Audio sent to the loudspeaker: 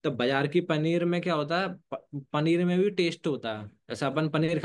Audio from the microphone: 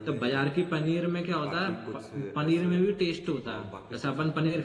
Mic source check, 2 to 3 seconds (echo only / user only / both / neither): both